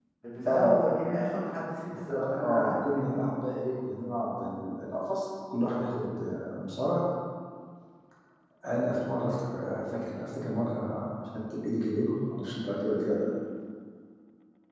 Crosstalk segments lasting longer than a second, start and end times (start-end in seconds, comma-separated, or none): 2.1-3.3